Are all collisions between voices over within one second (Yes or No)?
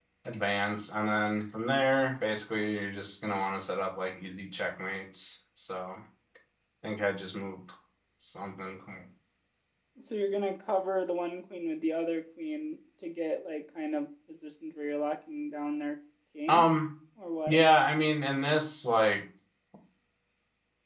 Yes